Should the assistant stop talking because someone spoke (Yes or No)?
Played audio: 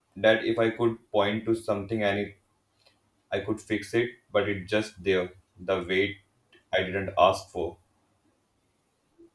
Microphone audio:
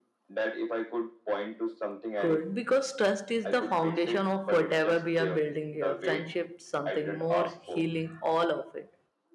Yes